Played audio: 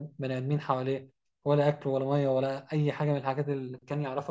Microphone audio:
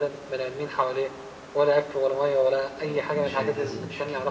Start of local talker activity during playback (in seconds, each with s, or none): 2.8 s